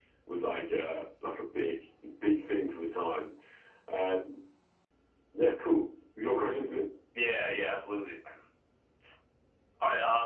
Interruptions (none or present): none